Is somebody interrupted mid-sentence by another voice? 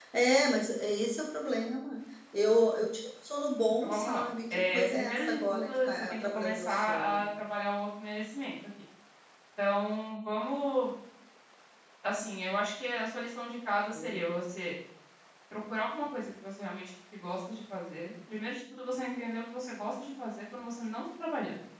Yes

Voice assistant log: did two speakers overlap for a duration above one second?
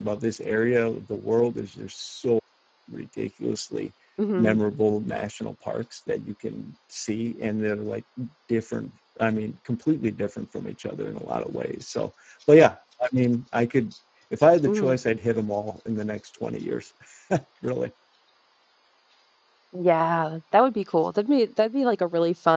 No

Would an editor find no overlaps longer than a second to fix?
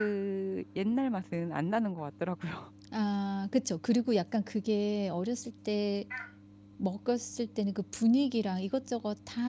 Yes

